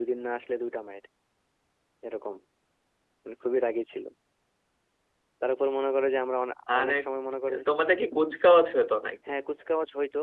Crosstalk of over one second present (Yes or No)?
No